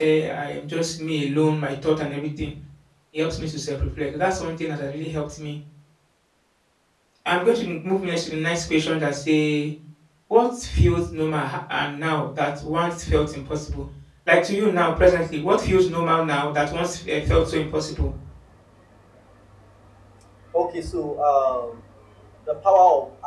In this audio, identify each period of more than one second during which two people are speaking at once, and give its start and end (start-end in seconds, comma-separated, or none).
none